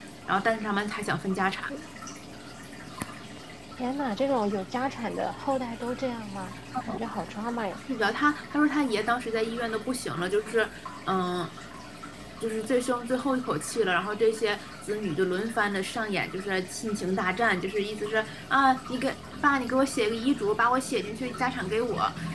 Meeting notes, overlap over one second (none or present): none